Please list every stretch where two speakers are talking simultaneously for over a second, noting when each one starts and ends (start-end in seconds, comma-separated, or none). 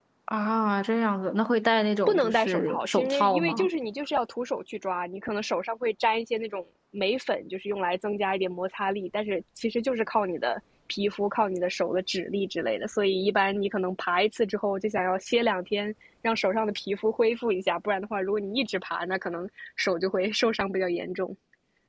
2.1-3.7